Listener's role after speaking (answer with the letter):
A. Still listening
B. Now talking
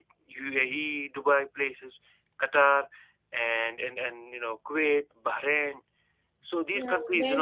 B